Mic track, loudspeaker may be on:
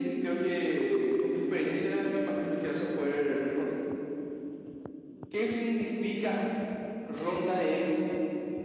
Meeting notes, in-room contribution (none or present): none